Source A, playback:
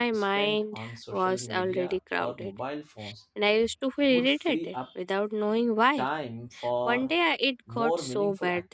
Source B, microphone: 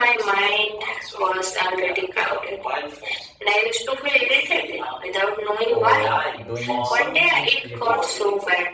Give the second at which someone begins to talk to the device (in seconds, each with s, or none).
5.6 s